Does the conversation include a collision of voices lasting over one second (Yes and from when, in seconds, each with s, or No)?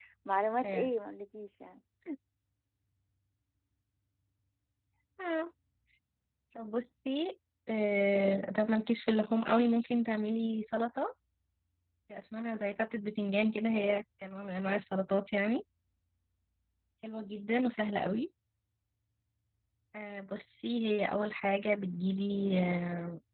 No